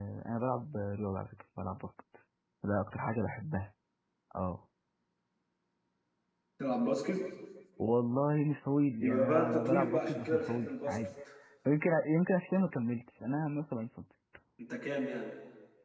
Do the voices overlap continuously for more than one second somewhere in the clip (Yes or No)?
Yes